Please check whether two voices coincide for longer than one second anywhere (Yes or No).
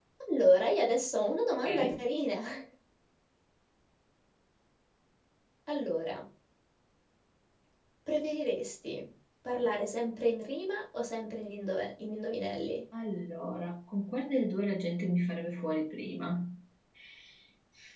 No